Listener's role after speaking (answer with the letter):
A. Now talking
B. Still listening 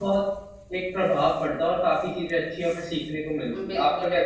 A